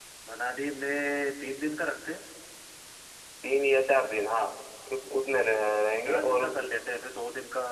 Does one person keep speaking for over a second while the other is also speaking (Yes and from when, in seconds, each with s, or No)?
No